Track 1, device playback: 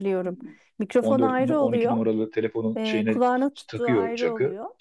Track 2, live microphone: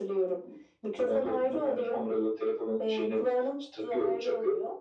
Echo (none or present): present